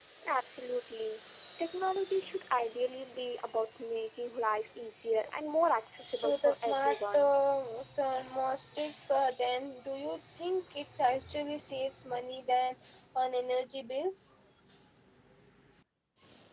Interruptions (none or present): present